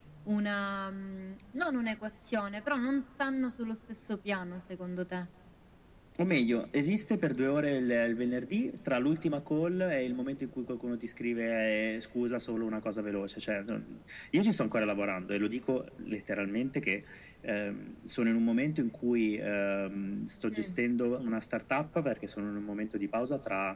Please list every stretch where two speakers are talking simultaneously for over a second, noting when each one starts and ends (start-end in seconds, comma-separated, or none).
none